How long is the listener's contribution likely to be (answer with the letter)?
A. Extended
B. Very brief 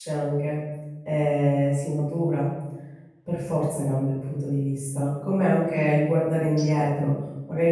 B